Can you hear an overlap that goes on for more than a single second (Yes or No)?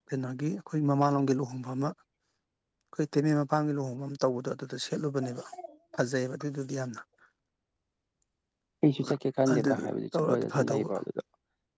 Yes